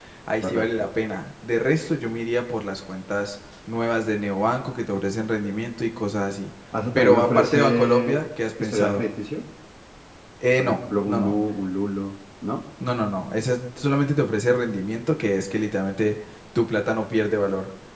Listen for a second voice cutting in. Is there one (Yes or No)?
Yes